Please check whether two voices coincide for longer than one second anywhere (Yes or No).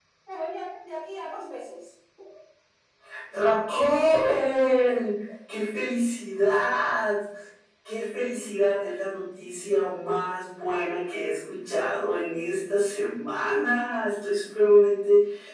No